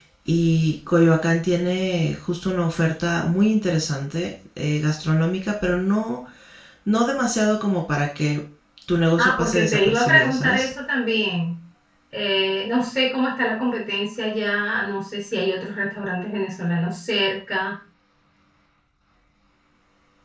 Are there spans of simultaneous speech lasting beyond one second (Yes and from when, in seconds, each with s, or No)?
Yes, from 9.2 s